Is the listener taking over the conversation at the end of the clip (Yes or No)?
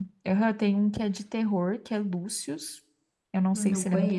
No